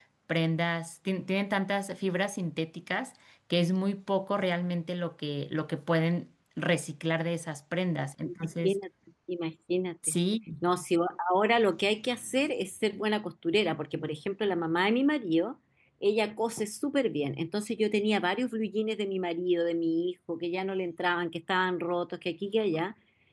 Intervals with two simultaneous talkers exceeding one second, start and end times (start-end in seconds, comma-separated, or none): none